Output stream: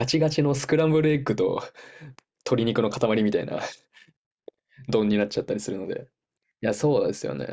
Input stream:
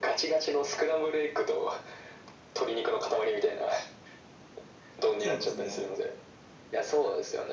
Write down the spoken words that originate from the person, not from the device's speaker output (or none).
そうですね。